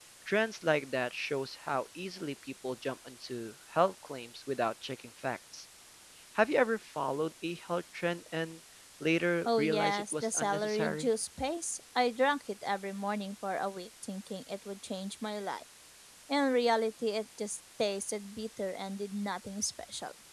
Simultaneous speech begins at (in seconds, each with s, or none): 9.4 s